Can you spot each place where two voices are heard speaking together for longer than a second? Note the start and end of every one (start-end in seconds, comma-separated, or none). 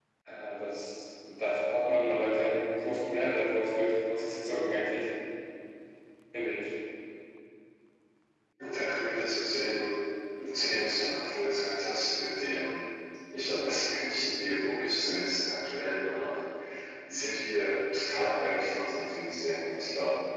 none